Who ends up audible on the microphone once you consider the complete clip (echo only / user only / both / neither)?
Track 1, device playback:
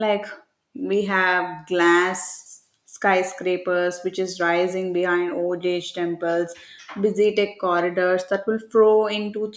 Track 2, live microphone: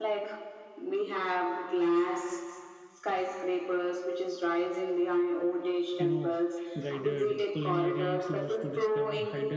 both